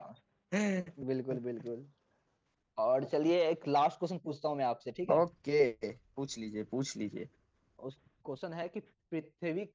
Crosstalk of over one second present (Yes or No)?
No